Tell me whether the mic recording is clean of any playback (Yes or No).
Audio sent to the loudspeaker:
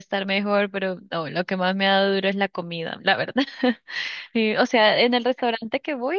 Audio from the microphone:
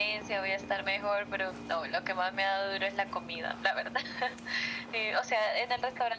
No